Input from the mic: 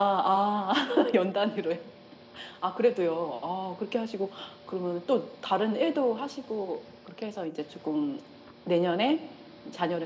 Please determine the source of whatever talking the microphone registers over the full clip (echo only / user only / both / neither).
echo only